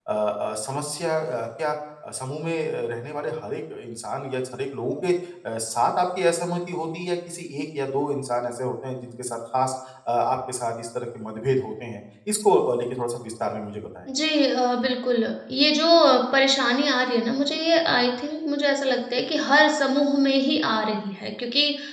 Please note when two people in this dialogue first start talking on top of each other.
none

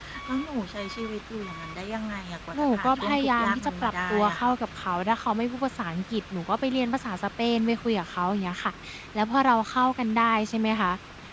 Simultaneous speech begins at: 2.5 s

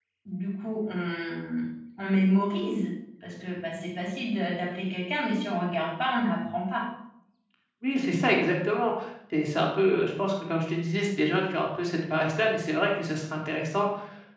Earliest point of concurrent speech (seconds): none

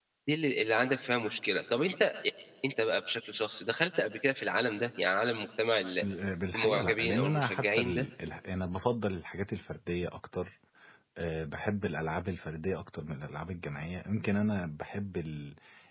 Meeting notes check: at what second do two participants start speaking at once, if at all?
6.5 s

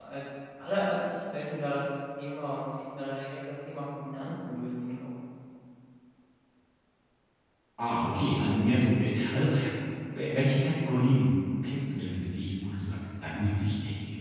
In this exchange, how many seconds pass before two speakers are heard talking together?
none

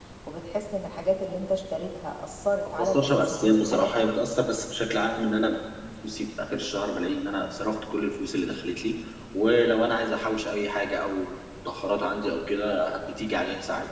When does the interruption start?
2.8 s

